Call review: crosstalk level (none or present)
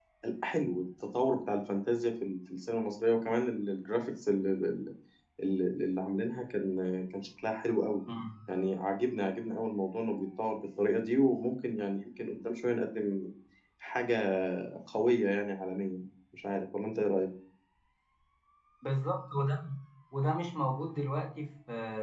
none